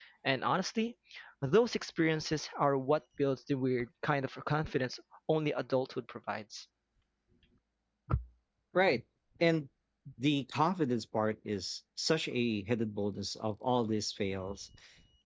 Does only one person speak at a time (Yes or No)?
Yes